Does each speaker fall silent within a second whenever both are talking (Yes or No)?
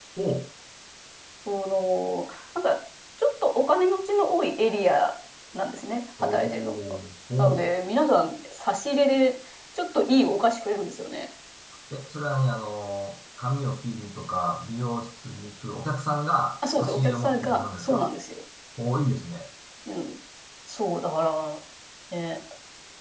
No